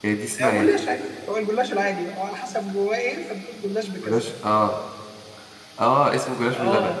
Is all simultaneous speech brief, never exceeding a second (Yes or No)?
Yes